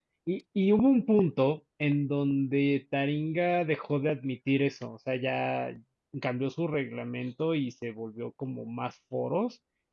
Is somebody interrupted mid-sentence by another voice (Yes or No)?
No